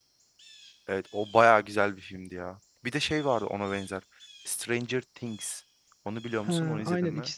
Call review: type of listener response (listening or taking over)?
taking over